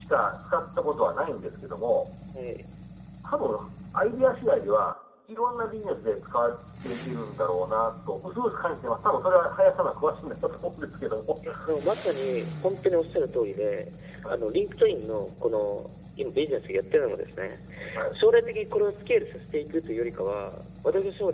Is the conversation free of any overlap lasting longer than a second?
Yes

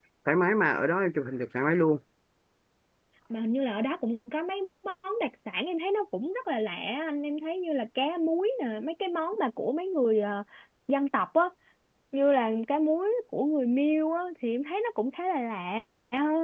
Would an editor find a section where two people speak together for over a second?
No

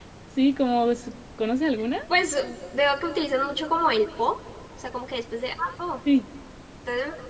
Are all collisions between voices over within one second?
Yes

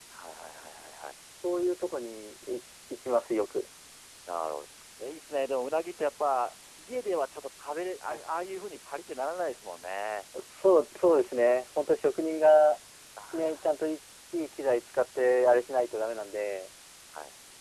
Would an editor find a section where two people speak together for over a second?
No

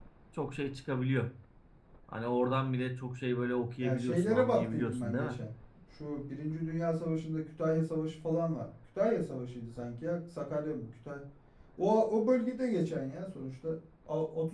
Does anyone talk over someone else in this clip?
Yes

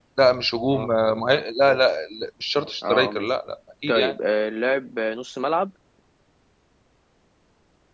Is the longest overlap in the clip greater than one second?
No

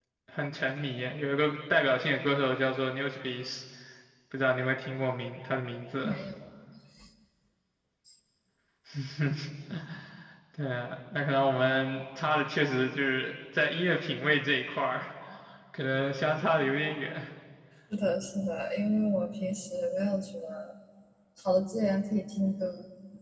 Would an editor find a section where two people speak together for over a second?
No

